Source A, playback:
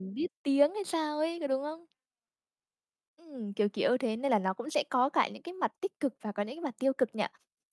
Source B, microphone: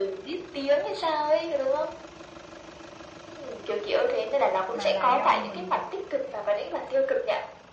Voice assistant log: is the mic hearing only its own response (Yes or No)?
No